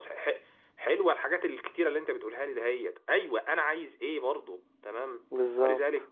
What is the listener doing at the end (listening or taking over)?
listening